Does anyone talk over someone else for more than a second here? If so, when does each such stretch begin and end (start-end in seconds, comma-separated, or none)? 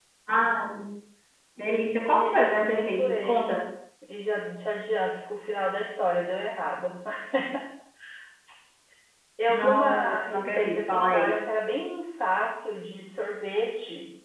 1.9-3.6, 9.5-11.3